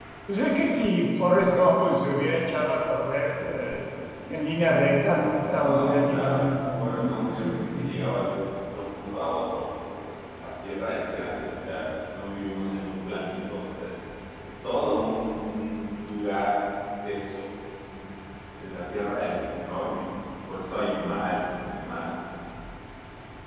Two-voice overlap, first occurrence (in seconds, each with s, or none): 5.6 s